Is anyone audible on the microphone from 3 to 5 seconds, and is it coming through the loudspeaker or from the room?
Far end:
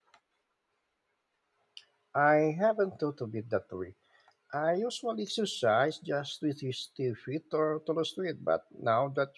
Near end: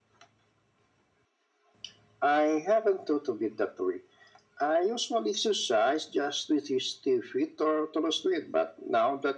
echo only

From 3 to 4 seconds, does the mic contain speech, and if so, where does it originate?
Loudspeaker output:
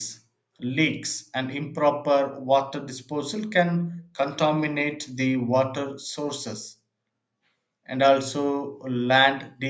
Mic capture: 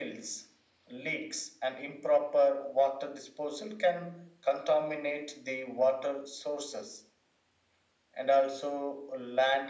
echo only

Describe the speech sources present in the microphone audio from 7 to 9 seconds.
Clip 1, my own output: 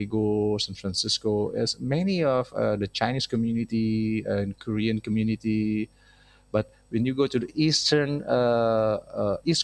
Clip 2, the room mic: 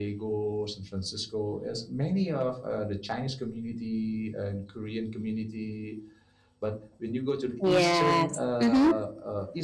both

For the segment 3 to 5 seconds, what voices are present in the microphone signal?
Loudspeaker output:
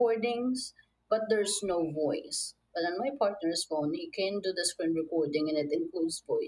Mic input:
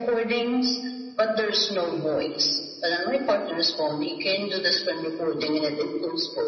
echo only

